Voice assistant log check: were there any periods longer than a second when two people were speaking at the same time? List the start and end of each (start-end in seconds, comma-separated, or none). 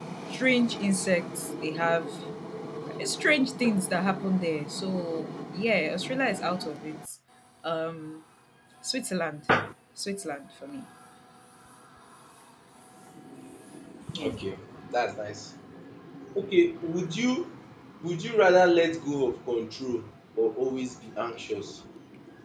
none